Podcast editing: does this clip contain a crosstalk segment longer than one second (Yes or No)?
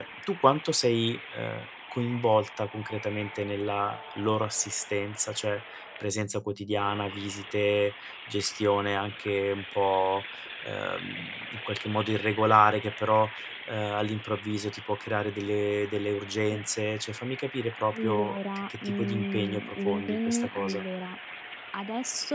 Yes